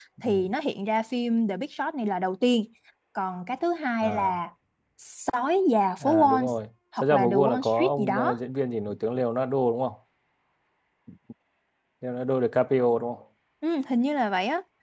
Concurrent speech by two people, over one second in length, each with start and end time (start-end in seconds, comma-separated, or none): 7.0-8.3